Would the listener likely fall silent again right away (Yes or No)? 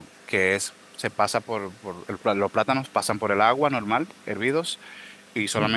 Yes